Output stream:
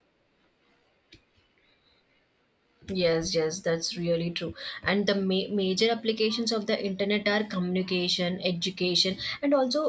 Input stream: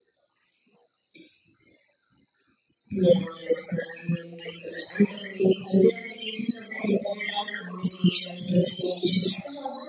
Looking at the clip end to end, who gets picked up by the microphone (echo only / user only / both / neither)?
echo only